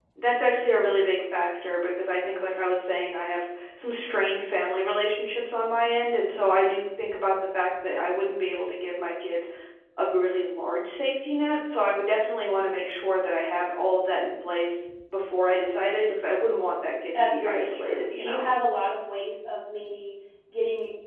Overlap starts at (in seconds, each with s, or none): 17.1 s